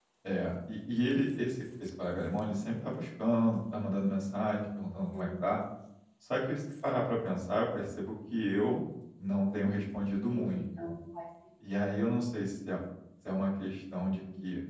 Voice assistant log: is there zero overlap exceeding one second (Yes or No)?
Yes